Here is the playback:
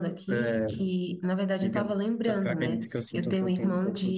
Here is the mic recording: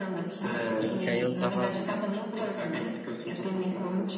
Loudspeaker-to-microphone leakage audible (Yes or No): Yes